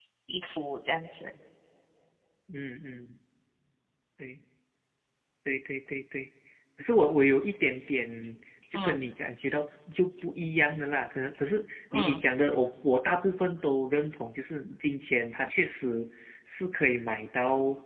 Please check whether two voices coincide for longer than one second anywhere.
No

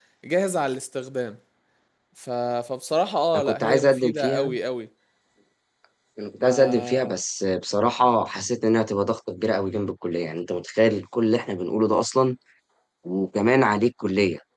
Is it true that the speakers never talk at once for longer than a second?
No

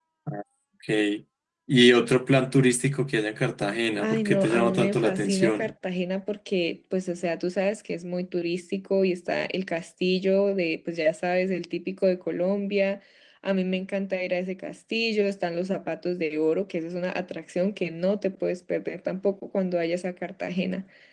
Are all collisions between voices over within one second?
No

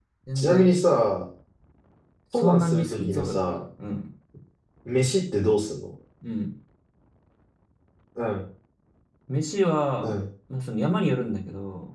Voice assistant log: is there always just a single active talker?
No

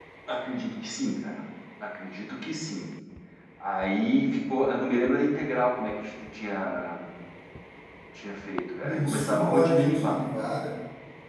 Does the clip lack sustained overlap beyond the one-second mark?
No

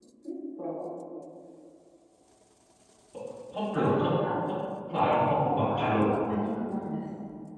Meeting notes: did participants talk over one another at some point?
Yes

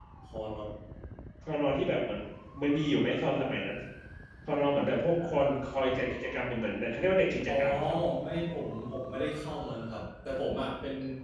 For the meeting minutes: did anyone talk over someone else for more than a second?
No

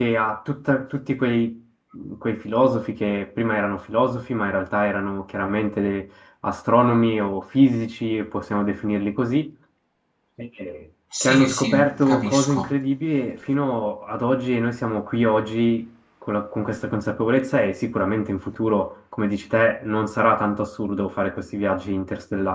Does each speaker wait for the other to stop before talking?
No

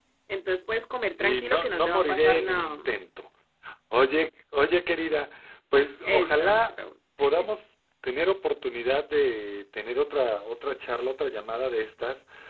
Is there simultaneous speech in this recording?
Yes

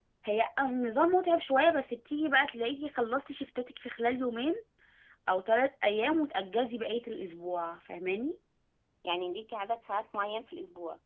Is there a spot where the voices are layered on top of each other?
No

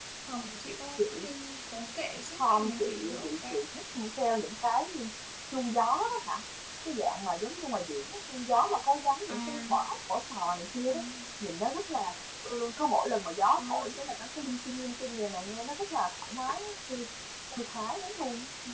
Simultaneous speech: Yes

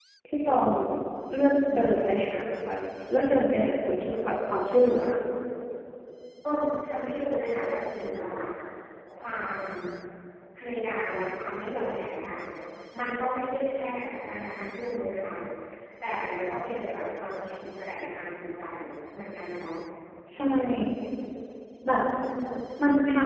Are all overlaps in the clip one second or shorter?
Yes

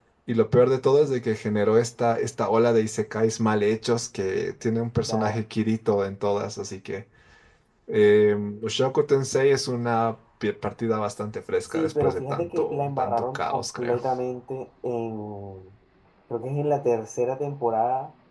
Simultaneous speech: Yes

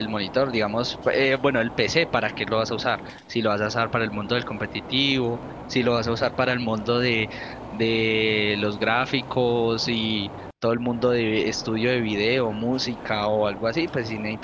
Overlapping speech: No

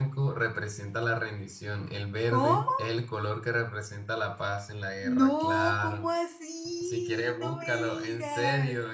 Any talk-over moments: Yes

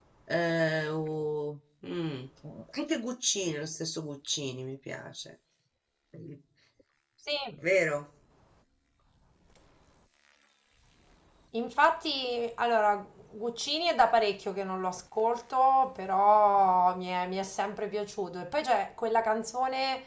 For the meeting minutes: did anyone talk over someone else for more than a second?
No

